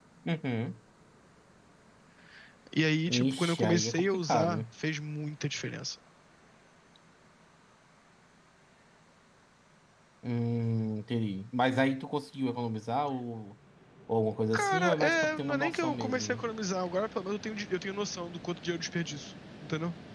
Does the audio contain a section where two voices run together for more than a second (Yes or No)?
Yes